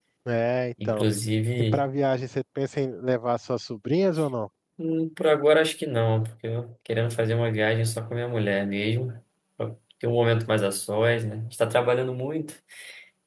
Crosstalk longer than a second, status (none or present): none